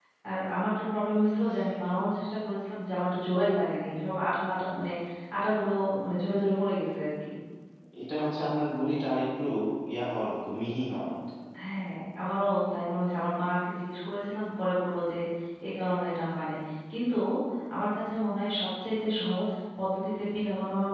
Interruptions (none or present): none